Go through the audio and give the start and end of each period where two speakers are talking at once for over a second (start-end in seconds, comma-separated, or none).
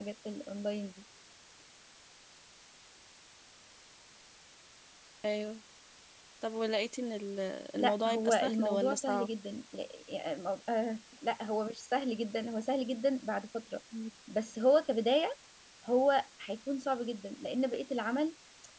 7.8-9.3